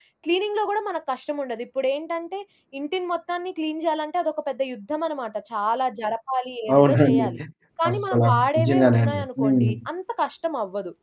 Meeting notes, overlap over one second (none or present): present